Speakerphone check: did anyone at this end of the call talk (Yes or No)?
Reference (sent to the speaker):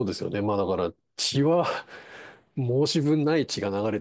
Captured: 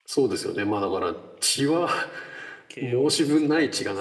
Yes